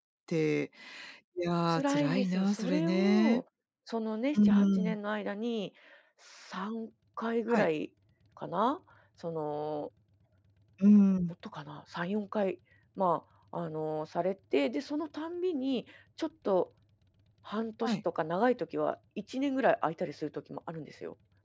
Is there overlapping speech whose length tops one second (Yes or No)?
Yes